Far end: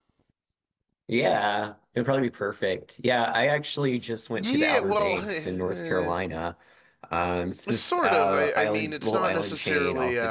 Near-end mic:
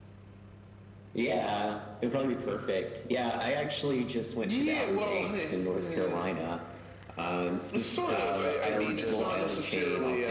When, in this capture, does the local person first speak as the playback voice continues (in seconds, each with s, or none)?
8.0 s